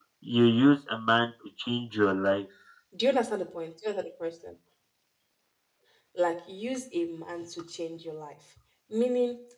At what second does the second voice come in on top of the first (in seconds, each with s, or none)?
none